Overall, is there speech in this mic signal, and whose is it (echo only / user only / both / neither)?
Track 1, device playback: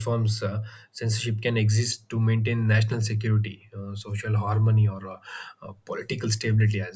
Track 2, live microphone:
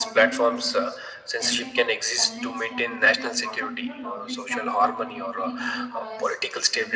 both